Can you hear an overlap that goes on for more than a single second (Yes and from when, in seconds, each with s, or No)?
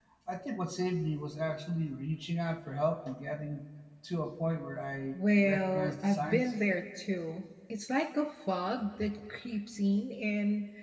Yes, from 5.1 s